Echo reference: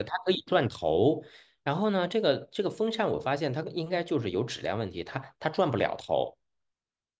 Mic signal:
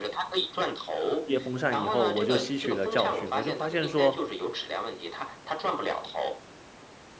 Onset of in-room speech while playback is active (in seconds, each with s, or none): 1.2 s